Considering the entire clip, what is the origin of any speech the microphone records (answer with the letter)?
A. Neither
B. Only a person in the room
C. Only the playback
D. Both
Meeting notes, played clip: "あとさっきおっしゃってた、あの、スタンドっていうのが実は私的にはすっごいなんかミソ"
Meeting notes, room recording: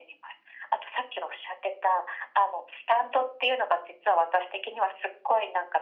C